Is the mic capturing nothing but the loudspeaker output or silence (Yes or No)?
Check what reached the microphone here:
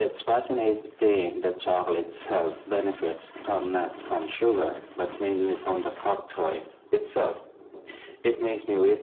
Yes